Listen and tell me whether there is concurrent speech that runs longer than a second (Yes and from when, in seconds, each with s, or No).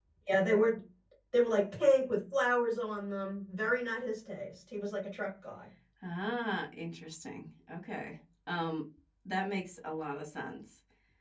No